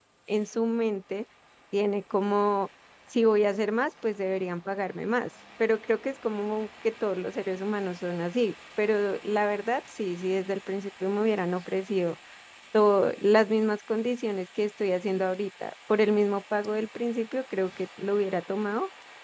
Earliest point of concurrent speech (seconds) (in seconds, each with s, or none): none